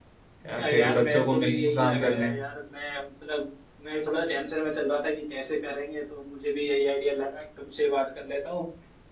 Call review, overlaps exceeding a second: present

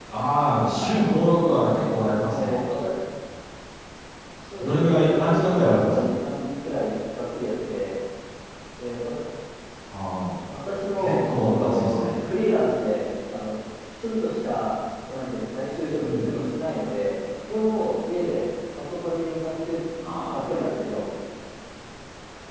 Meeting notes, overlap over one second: present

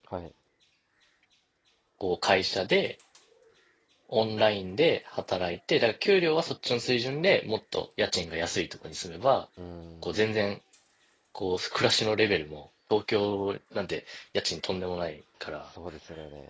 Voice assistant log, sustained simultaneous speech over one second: none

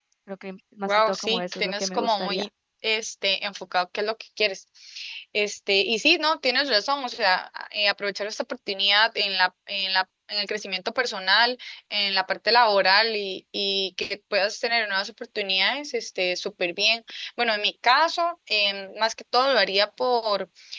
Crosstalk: present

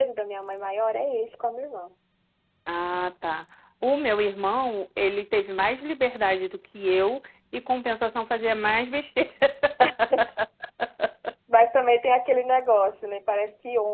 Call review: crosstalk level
none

